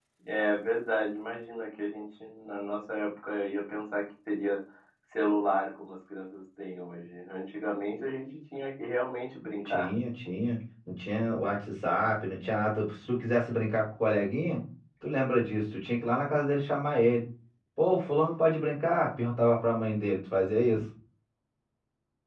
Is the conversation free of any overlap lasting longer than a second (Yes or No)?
Yes